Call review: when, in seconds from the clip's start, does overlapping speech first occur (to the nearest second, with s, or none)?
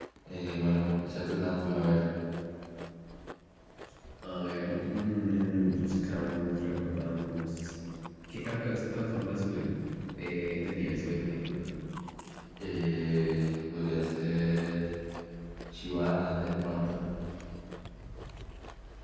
none